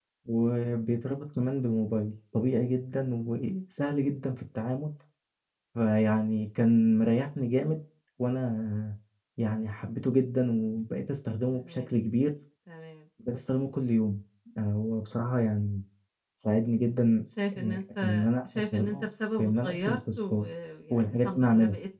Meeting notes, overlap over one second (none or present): present